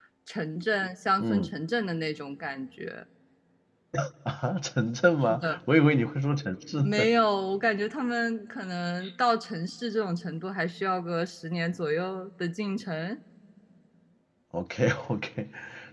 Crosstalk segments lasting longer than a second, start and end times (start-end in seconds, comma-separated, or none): none